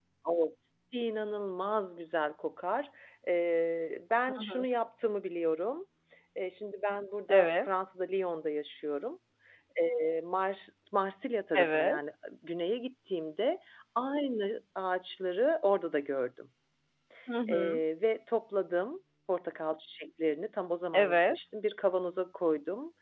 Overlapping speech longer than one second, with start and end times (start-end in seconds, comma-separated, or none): none